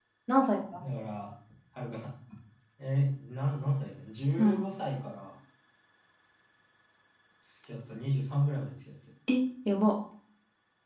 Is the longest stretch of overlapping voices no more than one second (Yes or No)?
Yes